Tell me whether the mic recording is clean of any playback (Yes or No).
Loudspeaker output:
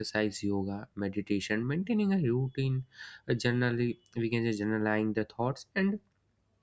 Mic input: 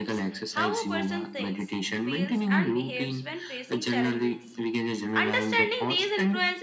No